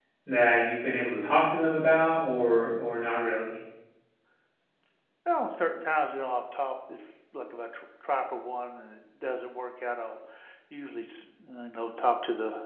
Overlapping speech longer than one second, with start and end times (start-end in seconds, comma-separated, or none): none